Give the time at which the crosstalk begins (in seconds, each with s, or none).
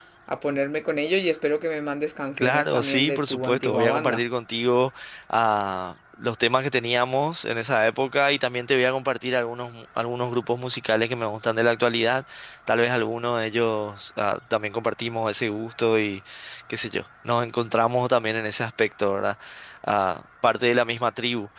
2.4 s